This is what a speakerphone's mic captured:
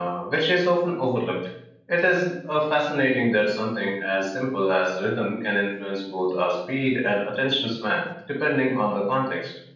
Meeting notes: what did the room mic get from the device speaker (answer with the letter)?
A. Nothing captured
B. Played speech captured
A